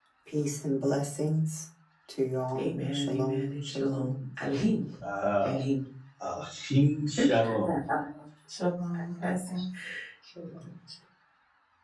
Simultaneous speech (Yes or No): Yes